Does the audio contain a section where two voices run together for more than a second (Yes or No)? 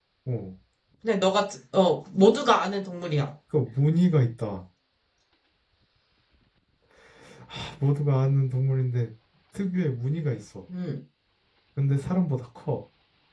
No